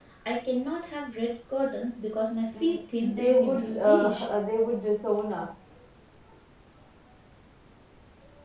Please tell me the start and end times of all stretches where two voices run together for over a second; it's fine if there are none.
2.6-4.2

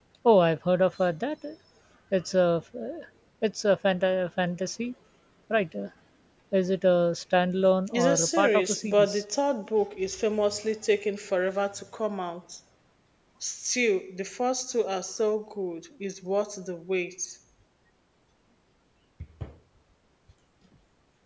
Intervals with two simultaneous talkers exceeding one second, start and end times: 7.9-9.2

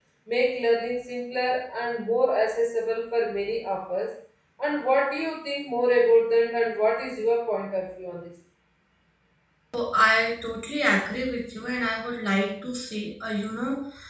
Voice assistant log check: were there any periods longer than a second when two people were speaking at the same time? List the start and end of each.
none

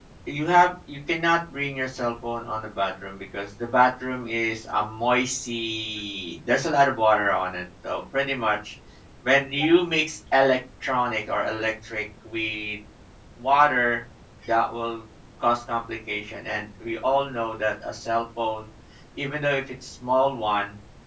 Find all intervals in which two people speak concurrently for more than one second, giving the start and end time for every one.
none

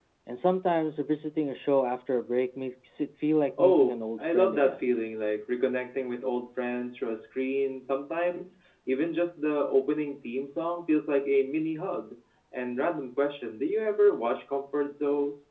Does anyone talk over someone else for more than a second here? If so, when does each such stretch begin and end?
3.6-4.8

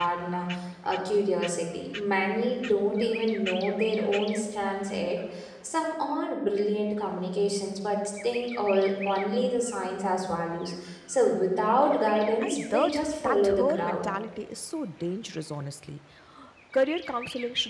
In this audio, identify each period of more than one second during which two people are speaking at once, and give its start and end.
12.4-14.1

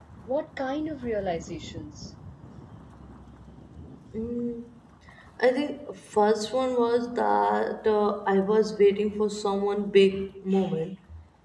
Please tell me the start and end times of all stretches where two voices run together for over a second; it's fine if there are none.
none

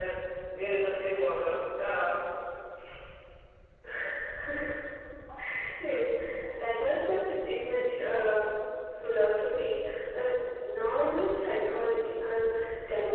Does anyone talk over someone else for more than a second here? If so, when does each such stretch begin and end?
none

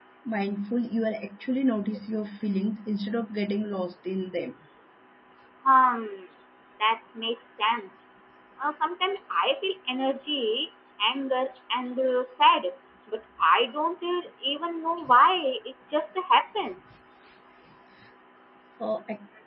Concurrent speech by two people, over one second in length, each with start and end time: none

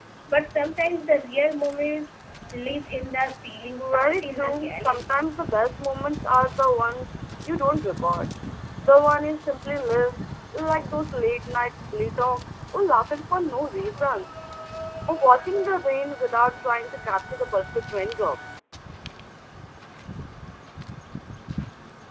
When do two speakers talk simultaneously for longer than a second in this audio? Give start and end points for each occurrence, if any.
3.9-5.1

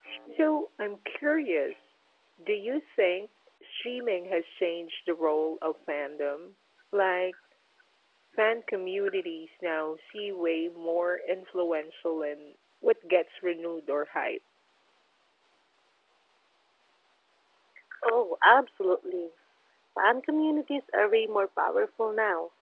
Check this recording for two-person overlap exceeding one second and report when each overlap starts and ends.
none

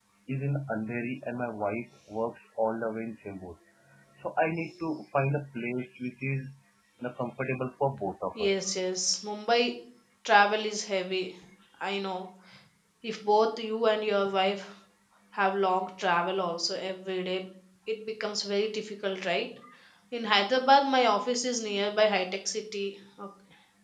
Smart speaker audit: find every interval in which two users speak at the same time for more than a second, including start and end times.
none

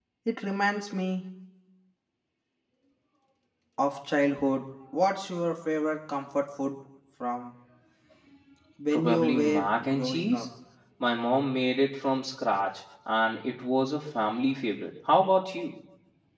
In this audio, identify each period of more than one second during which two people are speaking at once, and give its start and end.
8.9-10.4

